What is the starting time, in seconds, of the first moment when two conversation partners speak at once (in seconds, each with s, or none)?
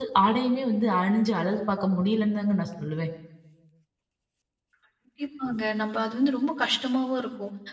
none